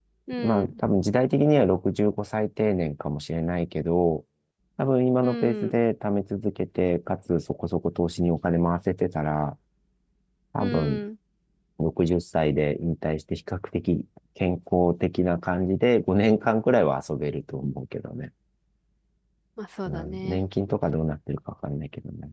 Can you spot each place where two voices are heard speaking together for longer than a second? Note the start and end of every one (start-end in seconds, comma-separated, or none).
none